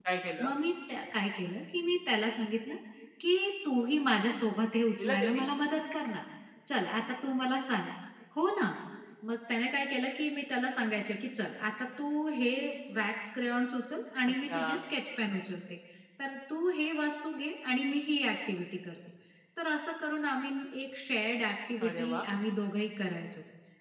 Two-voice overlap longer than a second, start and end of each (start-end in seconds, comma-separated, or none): none